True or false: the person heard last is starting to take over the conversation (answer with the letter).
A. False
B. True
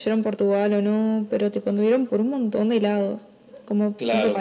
B